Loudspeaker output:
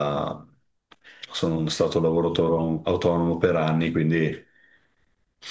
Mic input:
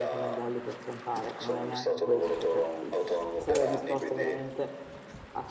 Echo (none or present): present